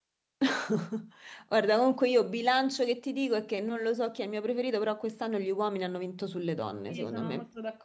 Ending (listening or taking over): taking over